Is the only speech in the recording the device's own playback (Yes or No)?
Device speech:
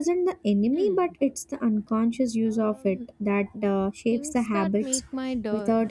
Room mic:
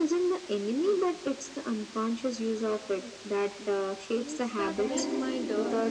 No